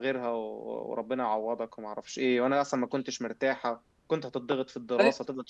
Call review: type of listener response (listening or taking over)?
listening